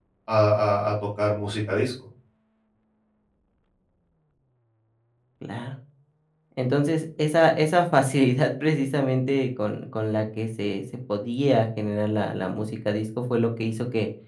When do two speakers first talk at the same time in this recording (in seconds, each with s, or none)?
none